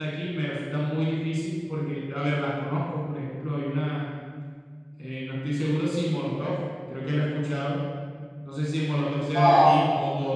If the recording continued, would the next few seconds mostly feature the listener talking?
No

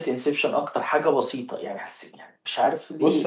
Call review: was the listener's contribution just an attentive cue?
No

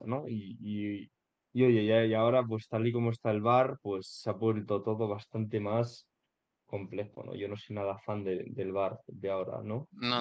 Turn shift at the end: Yes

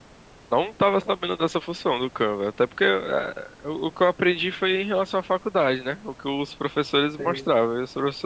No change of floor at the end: Yes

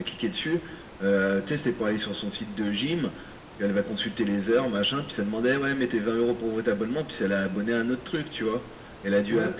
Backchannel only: Yes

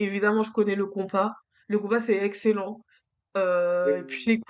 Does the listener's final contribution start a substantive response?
No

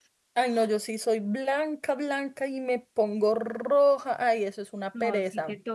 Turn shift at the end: Yes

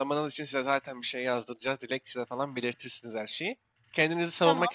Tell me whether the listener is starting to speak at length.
No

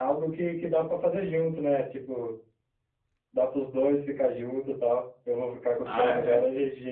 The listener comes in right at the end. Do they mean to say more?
No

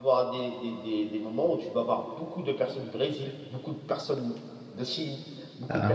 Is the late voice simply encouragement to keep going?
Yes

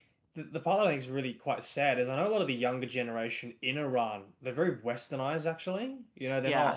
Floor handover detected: No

